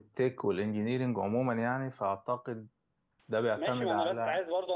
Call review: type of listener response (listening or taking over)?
taking over